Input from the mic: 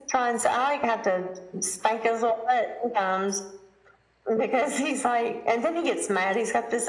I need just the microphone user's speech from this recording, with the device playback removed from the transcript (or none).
none